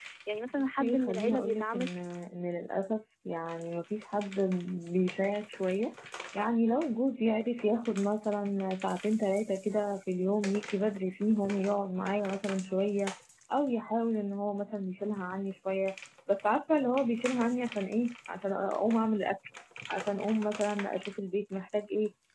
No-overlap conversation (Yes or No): No